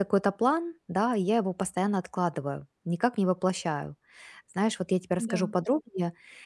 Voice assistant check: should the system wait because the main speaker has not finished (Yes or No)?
Yes